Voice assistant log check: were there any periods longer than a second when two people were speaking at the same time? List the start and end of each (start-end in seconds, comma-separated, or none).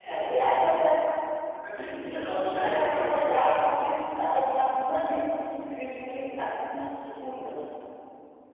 2.1-3.7